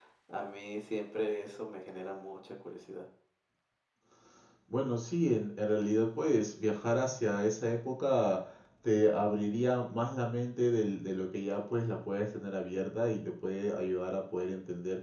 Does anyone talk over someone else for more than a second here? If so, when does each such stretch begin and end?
none

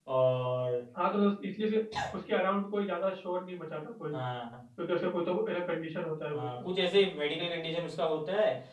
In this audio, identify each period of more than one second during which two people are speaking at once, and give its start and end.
none

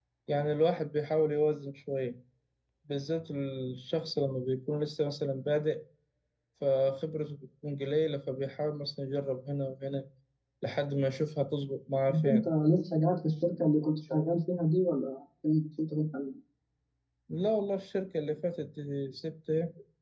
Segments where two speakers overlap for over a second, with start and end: none

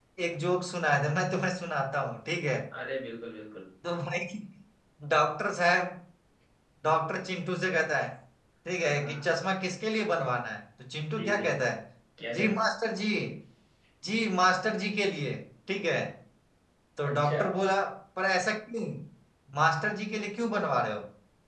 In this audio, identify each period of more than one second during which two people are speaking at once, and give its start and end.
none

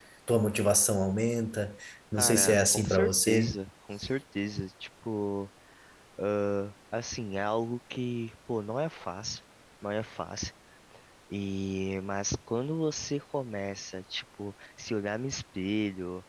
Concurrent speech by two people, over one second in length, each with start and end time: 2.2-3.5

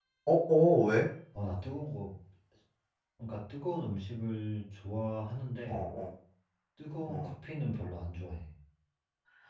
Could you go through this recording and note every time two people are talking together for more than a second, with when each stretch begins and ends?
none

